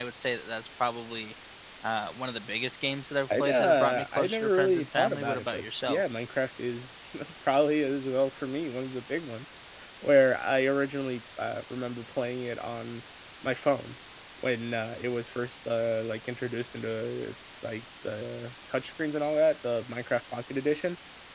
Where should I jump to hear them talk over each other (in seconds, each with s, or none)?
3.3 s